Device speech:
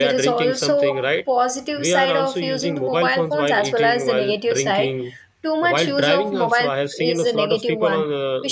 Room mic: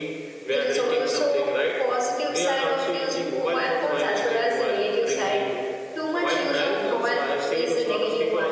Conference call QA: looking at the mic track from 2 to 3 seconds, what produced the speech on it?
echo only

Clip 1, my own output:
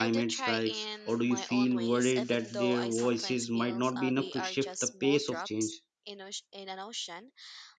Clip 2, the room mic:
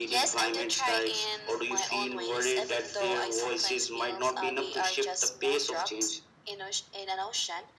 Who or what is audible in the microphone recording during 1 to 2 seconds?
echo only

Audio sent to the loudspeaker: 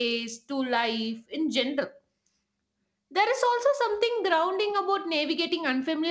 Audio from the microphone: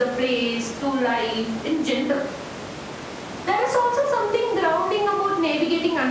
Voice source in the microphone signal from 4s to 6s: echo only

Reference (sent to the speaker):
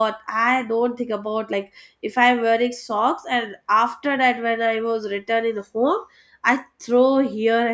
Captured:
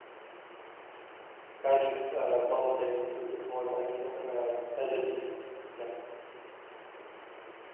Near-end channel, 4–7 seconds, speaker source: user only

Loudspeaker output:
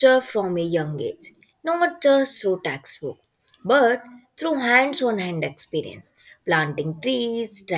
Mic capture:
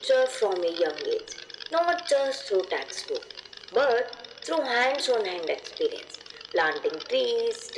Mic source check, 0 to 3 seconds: echo only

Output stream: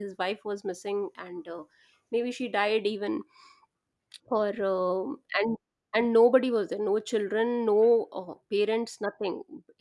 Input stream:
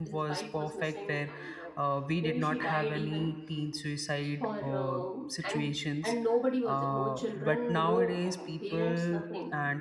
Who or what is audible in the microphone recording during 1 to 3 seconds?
both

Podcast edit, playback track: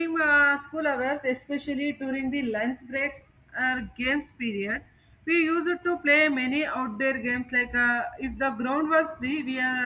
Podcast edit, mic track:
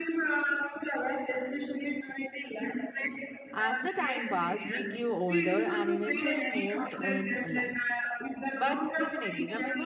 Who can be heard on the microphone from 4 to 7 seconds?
both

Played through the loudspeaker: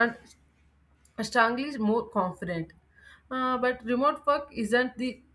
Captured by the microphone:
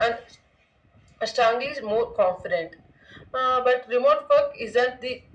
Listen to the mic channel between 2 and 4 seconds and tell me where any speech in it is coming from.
echo only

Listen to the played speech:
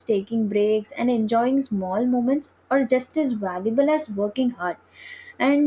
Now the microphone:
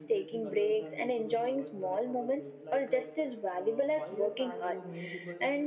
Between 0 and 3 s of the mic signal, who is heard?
both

